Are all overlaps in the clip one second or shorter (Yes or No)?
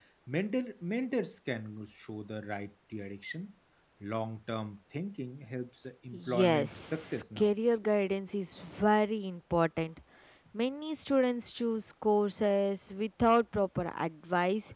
No